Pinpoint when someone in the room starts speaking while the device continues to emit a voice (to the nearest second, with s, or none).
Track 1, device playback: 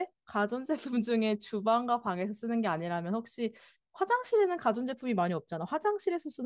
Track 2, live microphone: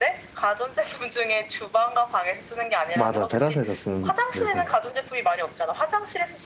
3 s